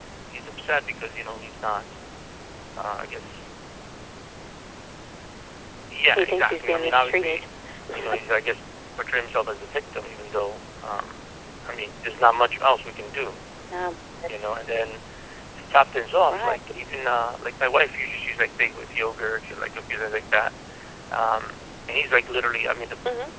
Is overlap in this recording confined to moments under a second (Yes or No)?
No